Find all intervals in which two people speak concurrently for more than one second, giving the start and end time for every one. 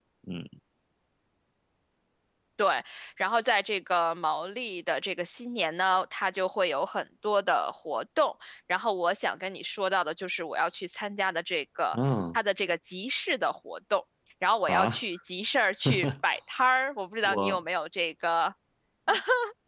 none

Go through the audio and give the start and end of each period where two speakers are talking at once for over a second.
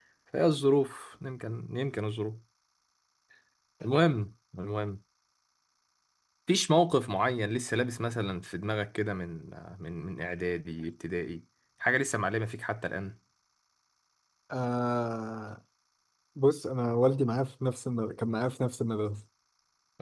none

